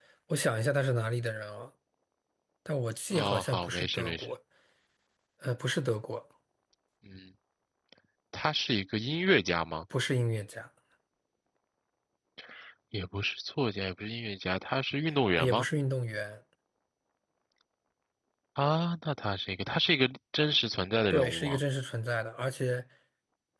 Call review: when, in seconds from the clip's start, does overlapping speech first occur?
3 s

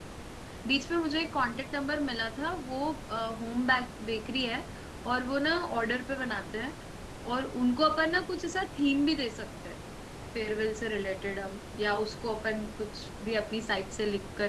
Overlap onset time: none

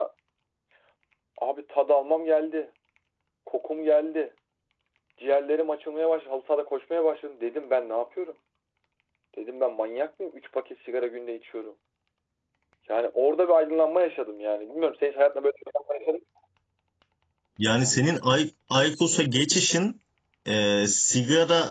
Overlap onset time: none

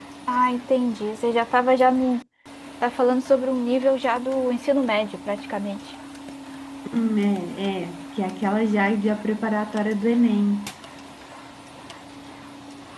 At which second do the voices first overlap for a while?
none

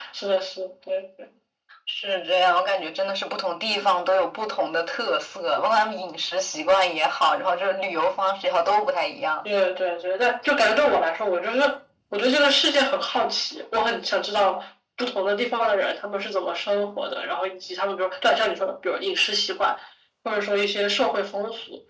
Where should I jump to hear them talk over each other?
none

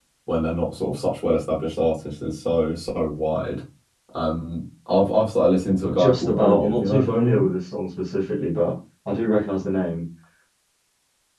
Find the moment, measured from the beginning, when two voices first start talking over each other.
6 s

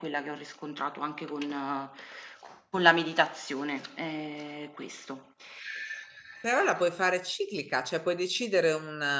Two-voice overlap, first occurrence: none

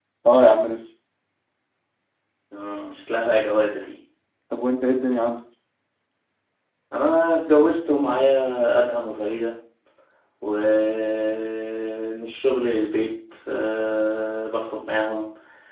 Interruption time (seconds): none

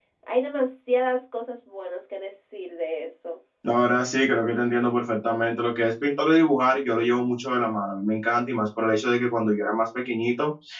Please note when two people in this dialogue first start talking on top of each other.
none

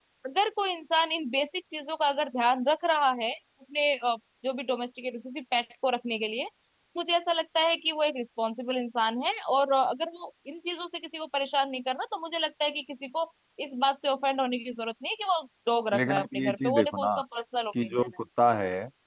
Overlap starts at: 16 s

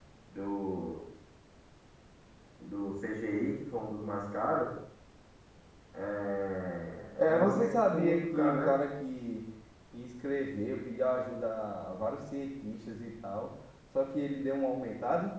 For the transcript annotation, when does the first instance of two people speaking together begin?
7 s

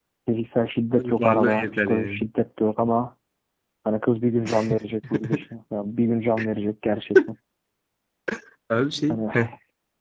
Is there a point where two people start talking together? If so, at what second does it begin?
1 s

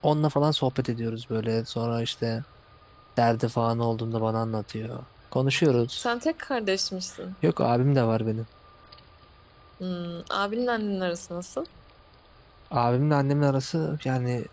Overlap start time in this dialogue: none

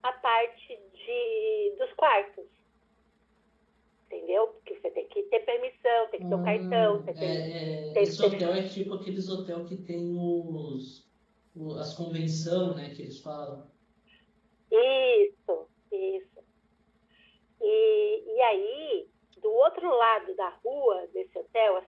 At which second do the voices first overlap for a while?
6 s

